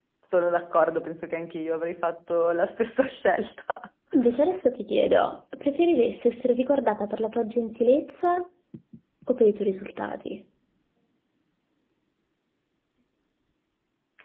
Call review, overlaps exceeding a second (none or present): none